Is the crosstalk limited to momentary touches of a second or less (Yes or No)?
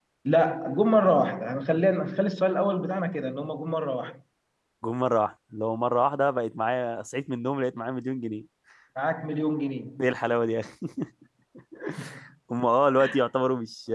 Yes